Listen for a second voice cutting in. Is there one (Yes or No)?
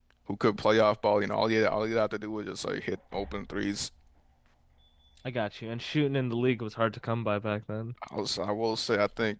No